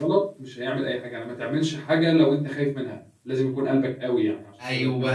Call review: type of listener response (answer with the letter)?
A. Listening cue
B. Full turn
B